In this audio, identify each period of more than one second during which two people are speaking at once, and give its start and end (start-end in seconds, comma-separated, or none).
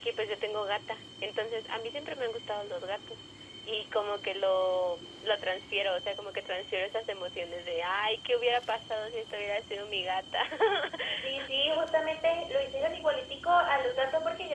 none